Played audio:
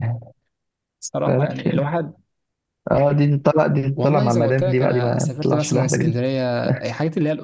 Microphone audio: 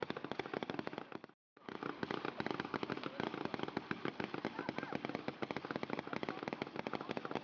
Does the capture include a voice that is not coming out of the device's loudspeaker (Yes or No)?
No